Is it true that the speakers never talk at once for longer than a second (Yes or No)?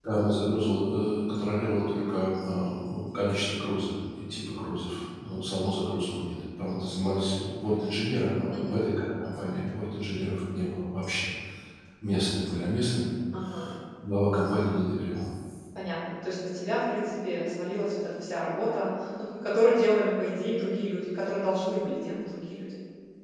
Yes